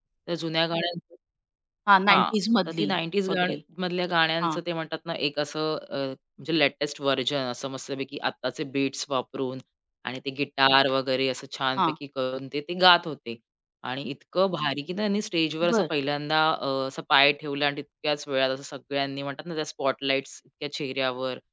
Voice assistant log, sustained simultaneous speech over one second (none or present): none